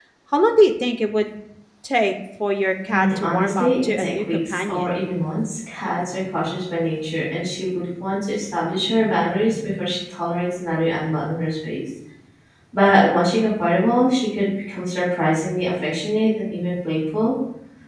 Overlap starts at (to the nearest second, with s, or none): 3 s